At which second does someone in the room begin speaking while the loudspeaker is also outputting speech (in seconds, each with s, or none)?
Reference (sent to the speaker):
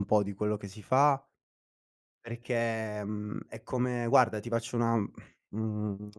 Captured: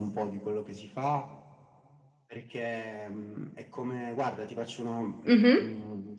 5.3 s